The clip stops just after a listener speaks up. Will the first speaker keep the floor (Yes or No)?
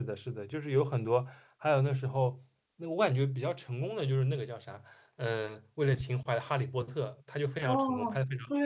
No